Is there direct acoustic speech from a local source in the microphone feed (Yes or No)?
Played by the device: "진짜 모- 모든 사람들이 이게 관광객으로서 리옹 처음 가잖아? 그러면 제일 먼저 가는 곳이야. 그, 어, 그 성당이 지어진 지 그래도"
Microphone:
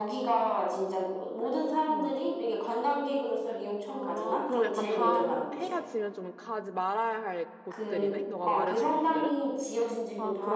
Yes